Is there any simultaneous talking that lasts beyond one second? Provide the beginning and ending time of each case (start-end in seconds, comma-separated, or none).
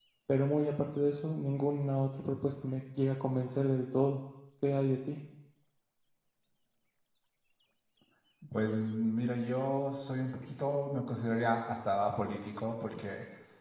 none